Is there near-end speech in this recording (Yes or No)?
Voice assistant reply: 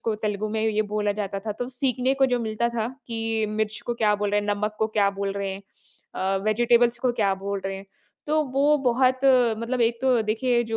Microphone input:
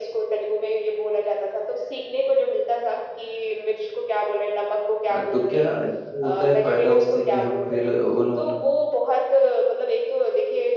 Yes